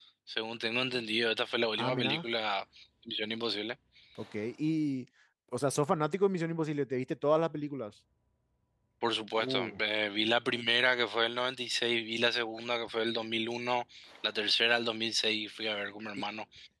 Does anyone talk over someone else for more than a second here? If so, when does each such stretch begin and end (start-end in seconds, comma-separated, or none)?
none